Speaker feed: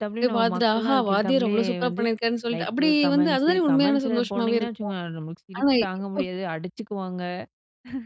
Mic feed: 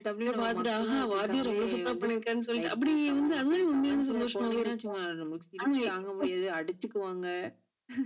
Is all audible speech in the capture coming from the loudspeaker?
Yes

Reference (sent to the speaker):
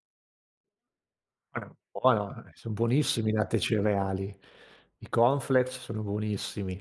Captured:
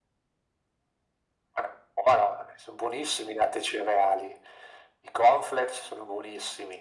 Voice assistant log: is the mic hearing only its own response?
Yes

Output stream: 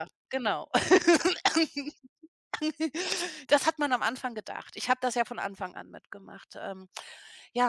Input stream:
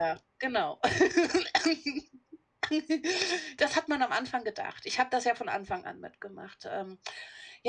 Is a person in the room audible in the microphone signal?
No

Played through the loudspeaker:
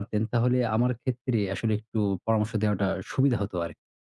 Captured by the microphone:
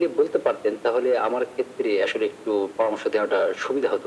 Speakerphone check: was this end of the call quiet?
Yes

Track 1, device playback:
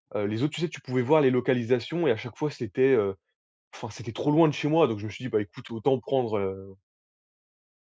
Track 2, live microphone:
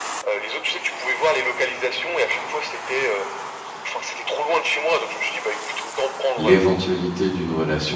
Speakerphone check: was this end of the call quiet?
No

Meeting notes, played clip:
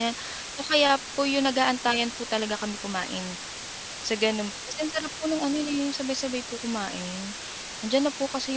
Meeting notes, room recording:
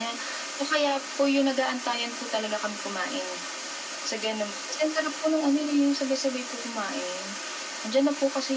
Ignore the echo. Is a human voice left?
No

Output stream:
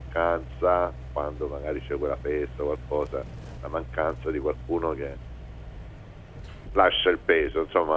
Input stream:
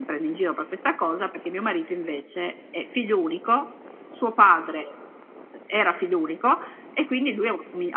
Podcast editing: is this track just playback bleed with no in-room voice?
No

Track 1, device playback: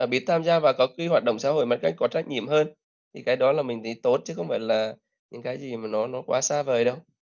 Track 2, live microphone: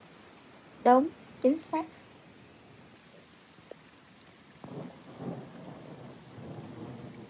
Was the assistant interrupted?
Yes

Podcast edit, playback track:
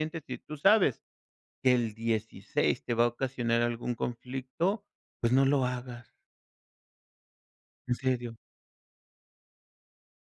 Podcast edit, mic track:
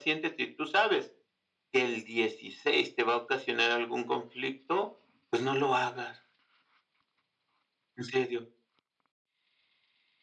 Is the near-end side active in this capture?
No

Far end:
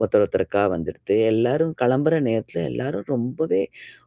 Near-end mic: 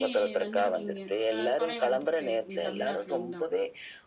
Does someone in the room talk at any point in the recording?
Yes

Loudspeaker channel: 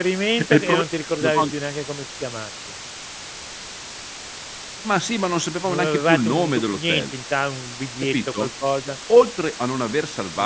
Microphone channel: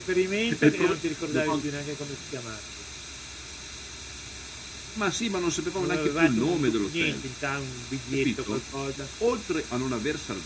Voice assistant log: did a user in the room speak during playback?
No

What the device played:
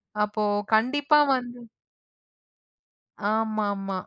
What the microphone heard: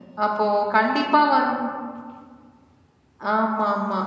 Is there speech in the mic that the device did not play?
No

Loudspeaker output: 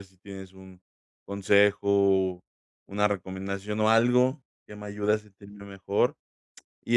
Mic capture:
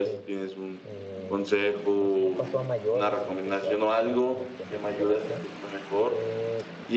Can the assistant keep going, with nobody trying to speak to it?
No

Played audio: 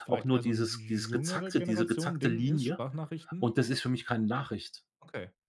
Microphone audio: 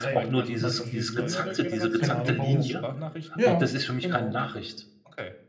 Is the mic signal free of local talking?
No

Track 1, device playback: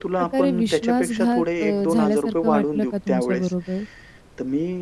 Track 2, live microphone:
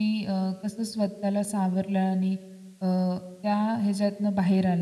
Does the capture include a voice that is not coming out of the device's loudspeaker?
Yes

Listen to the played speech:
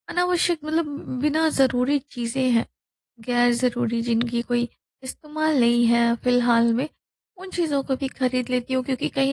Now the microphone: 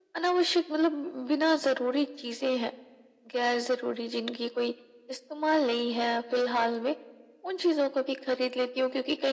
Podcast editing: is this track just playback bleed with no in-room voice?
Yes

